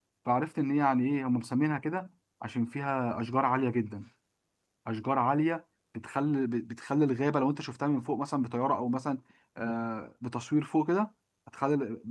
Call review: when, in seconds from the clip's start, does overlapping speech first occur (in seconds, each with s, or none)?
none